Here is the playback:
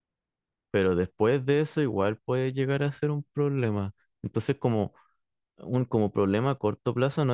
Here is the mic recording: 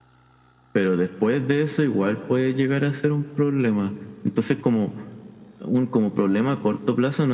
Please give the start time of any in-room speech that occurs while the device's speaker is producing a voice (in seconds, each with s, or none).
none